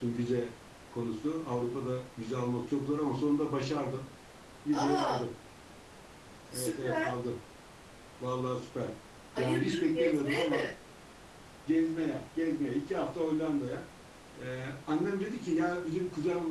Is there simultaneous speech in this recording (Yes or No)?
Yes